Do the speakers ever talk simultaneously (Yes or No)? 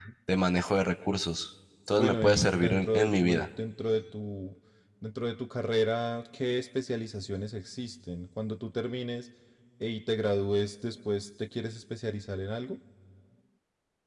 Yes